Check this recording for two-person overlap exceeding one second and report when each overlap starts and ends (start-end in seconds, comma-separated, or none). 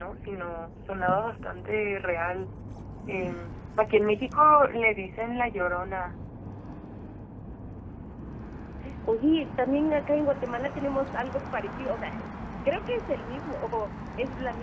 none